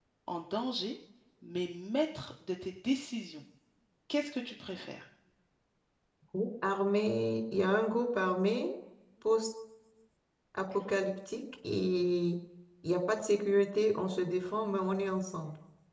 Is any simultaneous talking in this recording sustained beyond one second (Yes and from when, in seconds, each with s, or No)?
No